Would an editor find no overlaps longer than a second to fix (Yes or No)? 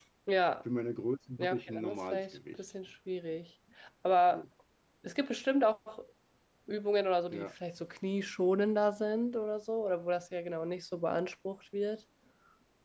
No